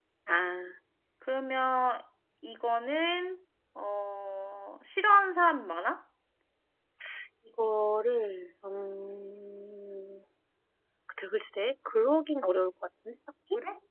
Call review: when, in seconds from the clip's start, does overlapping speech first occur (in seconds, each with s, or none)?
none